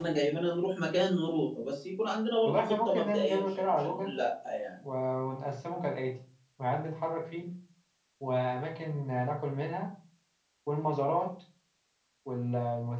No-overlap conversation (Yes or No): No